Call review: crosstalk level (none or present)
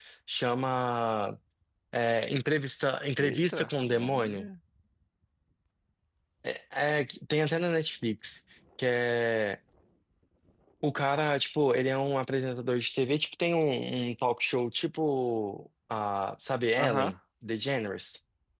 present